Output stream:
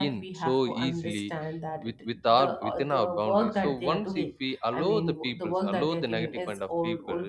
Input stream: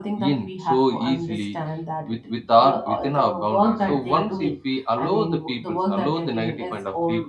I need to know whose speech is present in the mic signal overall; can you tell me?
echo only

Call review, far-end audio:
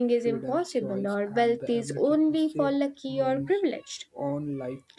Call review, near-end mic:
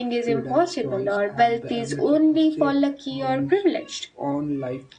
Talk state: echo only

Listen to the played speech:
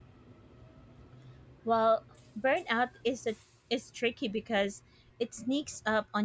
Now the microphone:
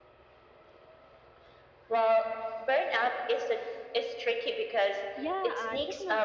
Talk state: both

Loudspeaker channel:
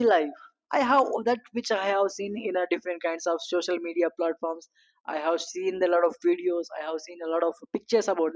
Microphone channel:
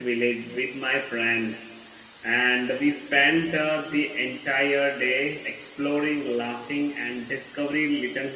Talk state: user only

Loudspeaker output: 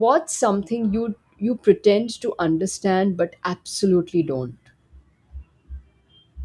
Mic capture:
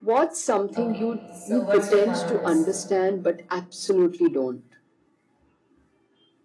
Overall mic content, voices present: both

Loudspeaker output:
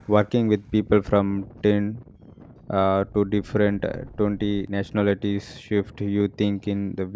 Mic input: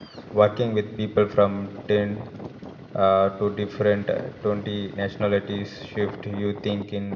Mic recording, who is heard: echo only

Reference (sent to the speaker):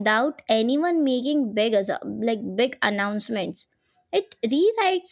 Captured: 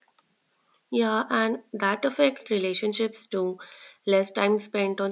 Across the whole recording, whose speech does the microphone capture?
user only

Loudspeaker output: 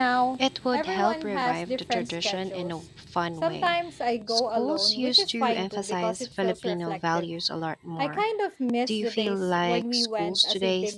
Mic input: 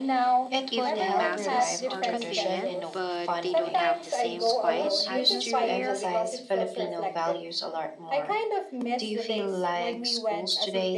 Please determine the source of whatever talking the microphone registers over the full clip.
both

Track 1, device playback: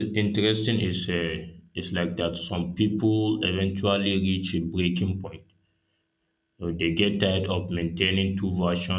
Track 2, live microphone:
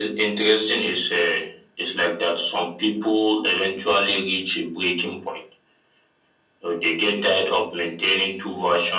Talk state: echo only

